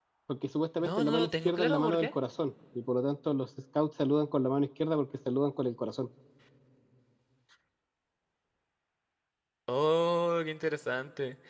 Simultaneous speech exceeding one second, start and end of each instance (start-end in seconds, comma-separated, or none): 0.8-2.1